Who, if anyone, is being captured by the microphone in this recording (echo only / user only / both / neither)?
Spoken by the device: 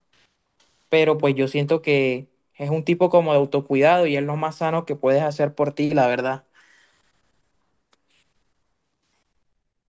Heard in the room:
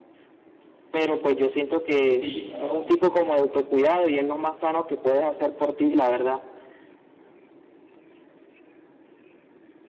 both